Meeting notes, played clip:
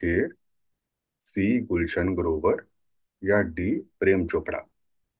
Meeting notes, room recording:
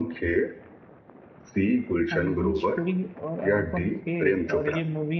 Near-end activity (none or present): present